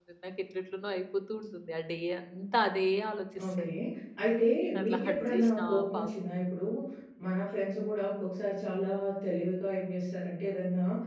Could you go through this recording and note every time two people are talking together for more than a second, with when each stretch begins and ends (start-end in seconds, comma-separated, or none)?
4.8-6.1